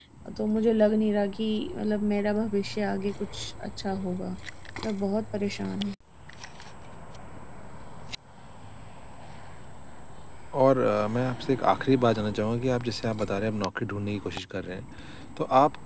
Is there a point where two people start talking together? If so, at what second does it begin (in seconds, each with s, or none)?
none